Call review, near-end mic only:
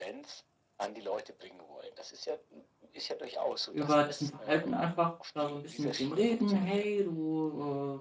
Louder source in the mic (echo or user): user